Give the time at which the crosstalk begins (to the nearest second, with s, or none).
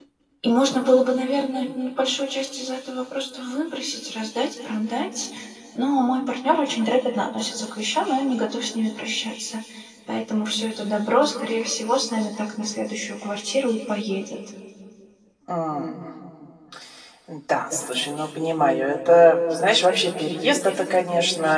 none